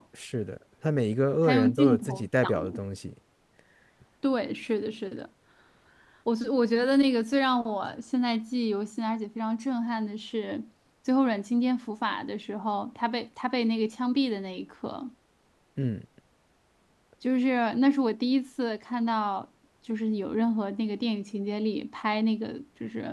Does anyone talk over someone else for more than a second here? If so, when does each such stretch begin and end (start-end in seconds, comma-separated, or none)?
1.4-2.8